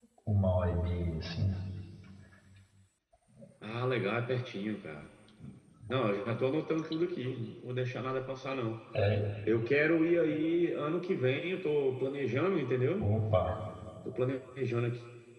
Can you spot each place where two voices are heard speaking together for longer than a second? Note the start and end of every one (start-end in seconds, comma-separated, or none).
none